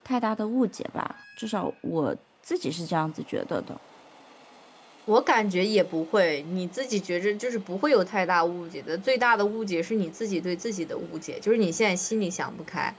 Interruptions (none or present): none